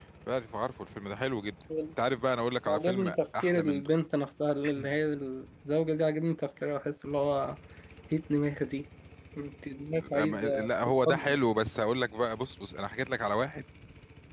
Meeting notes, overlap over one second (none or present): present